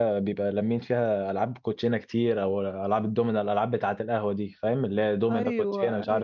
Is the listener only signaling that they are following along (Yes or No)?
No